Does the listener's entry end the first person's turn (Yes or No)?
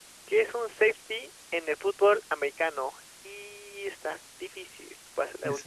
Yes